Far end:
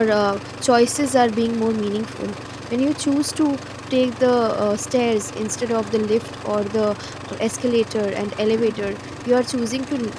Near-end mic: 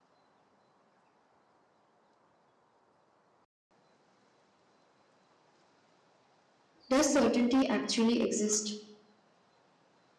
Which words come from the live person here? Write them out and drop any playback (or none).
does certainty actually exist